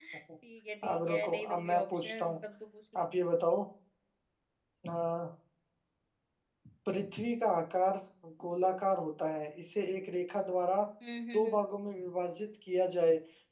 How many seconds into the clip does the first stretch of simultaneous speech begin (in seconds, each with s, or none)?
0.9 s